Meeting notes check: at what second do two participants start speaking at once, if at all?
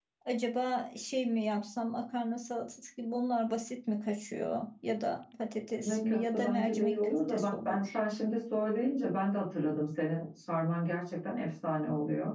5.8 s

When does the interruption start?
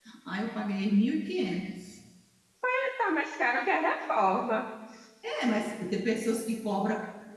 none

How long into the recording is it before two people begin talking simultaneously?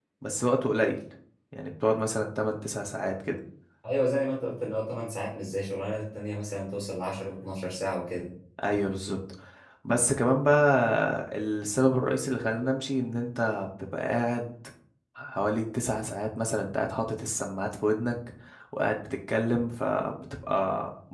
none

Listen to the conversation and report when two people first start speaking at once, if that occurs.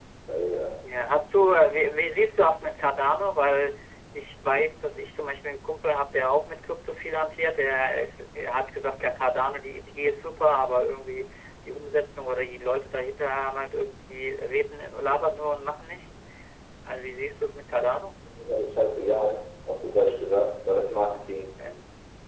none

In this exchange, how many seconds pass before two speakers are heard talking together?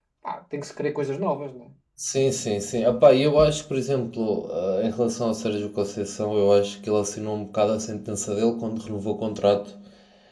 none

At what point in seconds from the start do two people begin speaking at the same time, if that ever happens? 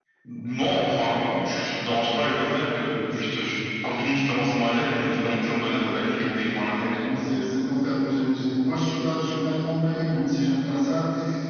5.6 s

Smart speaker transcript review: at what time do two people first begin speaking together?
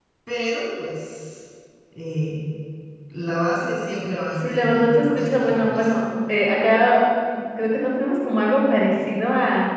4.3 s

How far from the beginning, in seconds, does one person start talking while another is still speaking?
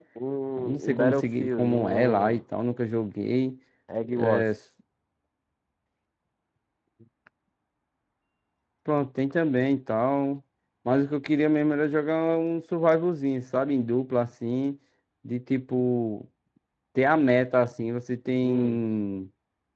0.6 s

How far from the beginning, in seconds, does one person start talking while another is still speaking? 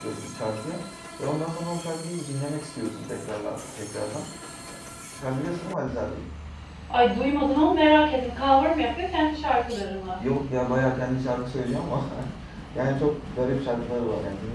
none

